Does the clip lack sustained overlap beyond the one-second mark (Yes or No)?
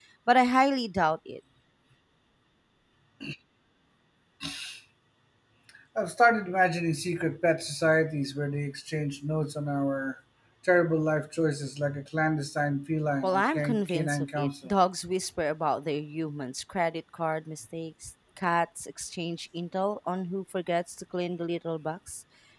No